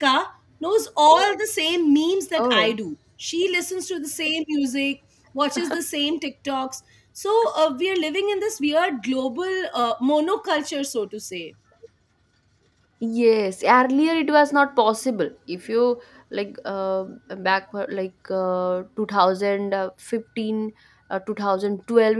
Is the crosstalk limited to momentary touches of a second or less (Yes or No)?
Yes